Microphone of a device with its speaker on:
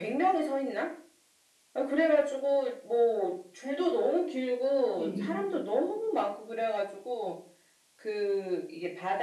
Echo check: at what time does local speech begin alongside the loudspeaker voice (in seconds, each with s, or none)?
5.0 s